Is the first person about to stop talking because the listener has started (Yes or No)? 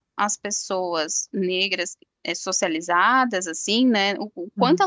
No